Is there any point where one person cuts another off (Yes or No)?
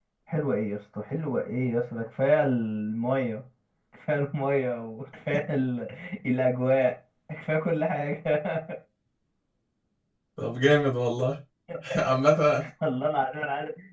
No